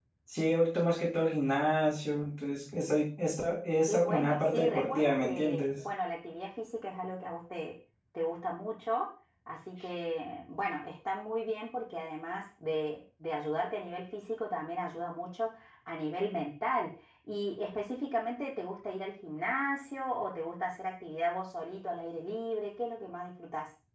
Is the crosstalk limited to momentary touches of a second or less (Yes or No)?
No